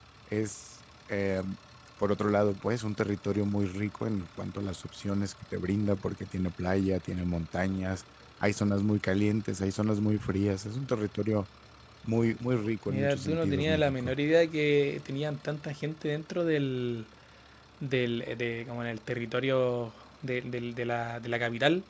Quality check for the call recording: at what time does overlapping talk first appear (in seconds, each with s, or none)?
12.9 s